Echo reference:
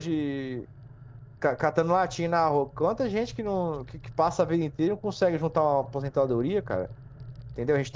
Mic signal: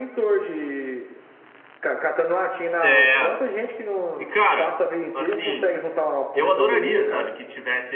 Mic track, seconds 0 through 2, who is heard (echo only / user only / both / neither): echo only